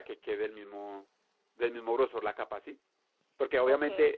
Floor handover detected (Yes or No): No